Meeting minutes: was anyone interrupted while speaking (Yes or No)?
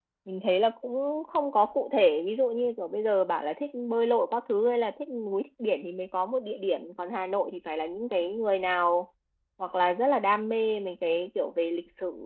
No